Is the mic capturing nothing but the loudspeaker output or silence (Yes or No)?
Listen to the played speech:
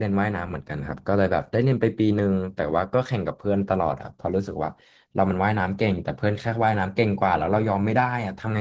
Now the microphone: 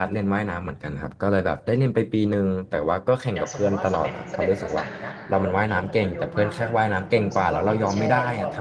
No